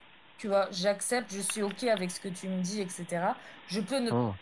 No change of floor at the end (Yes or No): Yes